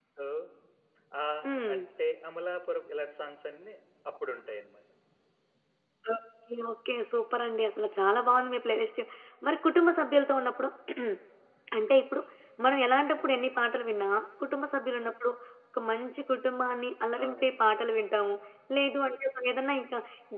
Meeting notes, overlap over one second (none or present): none